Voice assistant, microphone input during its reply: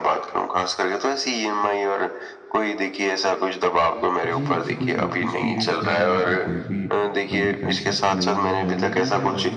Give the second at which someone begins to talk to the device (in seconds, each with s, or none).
4.3 s